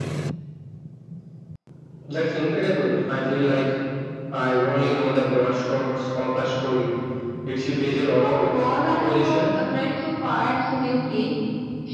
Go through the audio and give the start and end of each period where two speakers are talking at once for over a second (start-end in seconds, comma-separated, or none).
8.2-9.5